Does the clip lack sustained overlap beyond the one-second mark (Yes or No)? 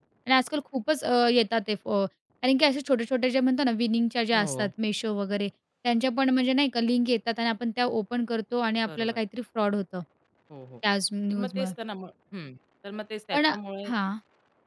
Yes